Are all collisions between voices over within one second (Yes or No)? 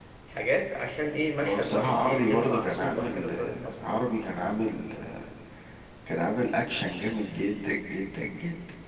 No